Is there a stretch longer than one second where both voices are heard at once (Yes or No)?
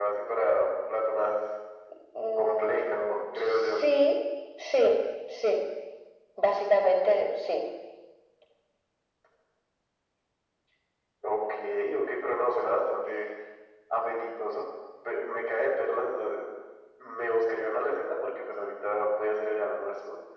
Yes